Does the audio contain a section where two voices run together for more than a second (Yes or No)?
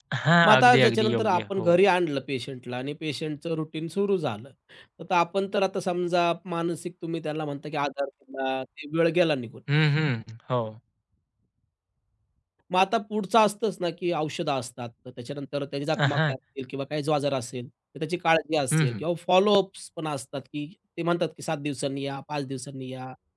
Yes